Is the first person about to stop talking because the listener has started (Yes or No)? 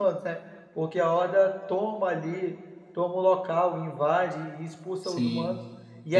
Yes